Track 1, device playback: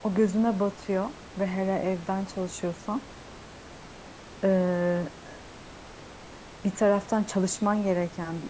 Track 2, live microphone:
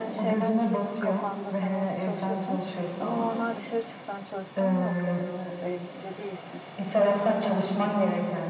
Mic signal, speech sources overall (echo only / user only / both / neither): both